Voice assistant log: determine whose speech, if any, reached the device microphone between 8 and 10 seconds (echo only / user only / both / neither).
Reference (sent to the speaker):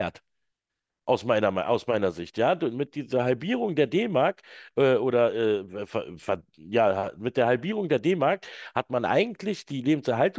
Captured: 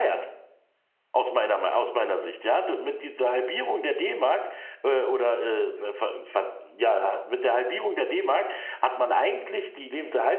echo only